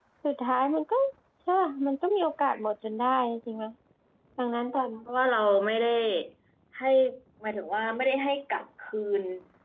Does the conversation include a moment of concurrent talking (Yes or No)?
No